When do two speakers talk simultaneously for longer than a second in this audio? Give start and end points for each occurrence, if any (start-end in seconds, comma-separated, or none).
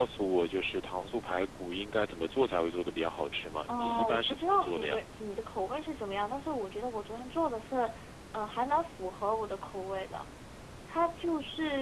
3.7-5.0